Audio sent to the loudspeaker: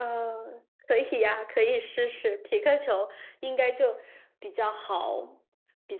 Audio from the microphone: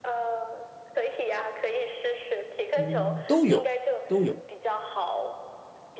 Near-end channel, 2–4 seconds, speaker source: both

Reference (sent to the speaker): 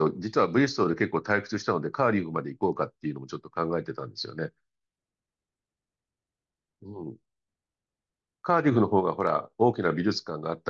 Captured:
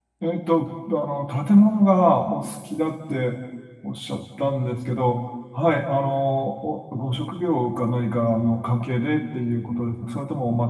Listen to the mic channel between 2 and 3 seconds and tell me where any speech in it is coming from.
user only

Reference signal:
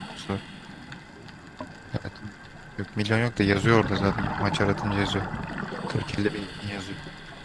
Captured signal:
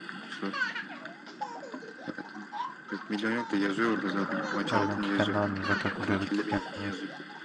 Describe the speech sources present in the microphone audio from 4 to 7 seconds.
both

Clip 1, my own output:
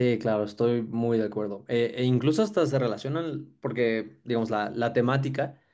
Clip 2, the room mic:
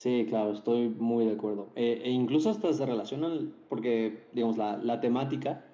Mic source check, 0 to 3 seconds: echo only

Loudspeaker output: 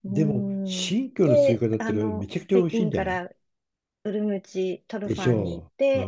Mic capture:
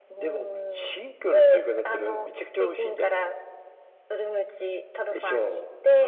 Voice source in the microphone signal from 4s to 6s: echo only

